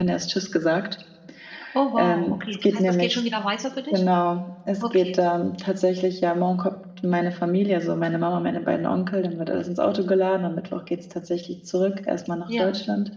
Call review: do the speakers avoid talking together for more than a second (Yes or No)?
No